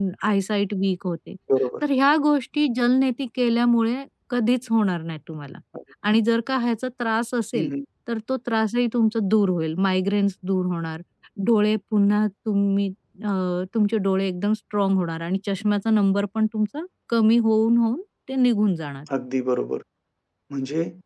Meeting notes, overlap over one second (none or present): none